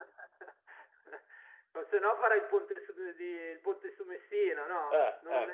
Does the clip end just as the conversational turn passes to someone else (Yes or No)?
Yes